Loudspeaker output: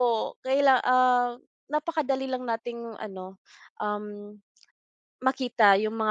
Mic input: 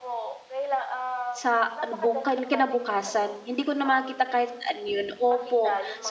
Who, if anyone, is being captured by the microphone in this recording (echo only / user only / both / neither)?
both